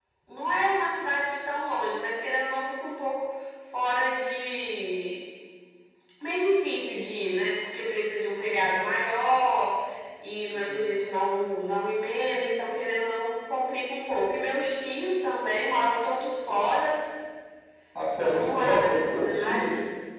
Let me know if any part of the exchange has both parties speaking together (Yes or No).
Yes